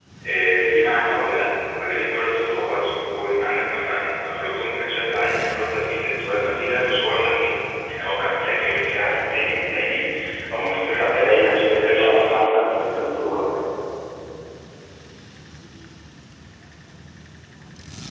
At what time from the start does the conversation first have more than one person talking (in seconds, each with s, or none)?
11.0 s